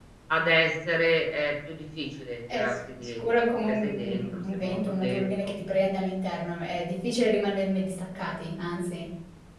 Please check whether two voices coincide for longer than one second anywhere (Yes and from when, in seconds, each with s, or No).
Yes, from 2.5 s